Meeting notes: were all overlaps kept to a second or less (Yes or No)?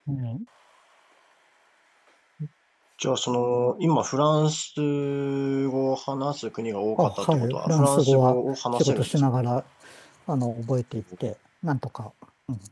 No